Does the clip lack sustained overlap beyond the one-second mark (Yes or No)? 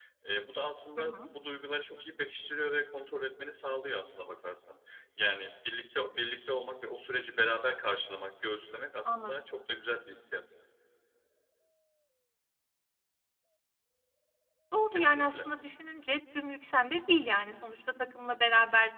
Yes